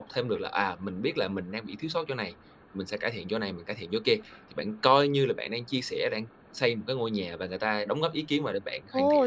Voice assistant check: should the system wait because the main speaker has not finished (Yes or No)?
No